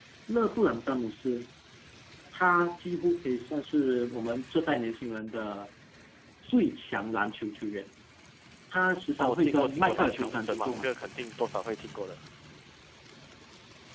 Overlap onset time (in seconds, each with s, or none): 9.2 s